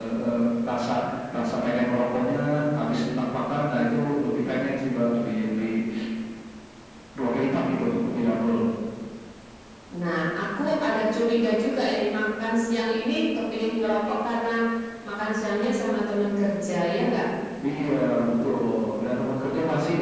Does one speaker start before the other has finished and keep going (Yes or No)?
No